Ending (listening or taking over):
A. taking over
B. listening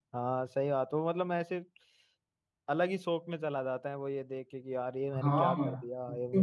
A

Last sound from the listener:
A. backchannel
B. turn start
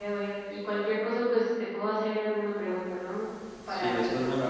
B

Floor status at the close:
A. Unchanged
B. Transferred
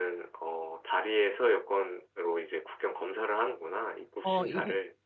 B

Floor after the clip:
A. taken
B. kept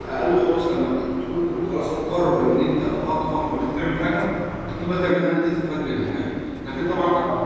B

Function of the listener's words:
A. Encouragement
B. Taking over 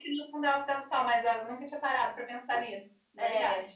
B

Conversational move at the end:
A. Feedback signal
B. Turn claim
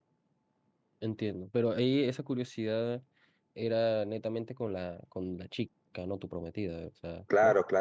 B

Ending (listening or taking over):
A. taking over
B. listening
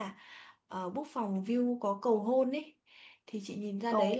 B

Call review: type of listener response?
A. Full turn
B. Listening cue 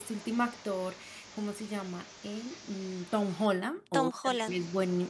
B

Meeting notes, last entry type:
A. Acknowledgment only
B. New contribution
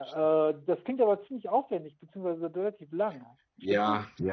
B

